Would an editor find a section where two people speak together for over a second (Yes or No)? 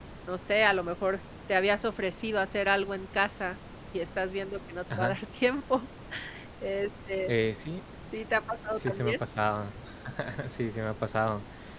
No